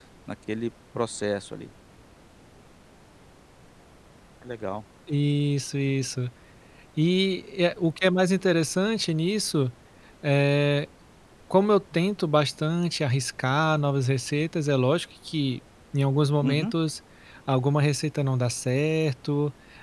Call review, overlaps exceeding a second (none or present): none